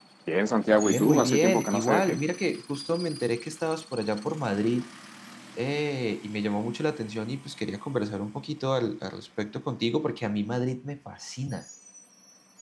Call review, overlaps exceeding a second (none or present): present